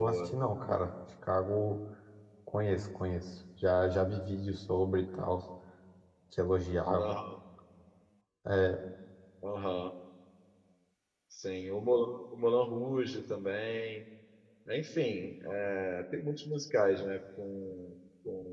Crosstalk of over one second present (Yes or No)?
No